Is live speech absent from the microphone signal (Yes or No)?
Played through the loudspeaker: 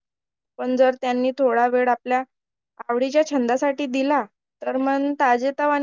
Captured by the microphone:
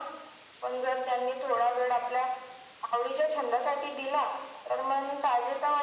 Yes